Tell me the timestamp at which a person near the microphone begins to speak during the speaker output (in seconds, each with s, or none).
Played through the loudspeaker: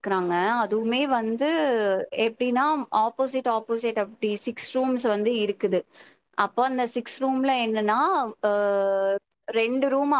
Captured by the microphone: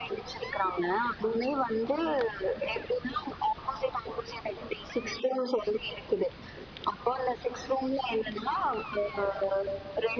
none